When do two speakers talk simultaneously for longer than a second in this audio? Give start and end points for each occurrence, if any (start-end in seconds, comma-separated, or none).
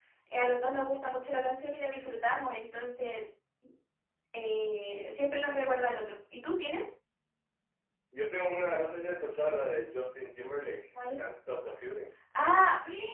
none